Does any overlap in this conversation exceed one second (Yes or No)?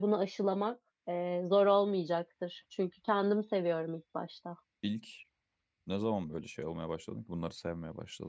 No